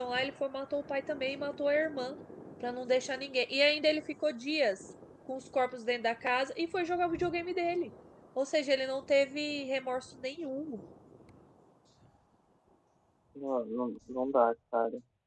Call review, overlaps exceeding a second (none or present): none